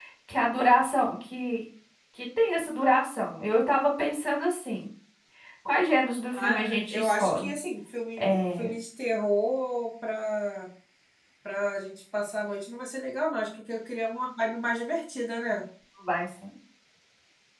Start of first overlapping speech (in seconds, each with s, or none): 6.3 s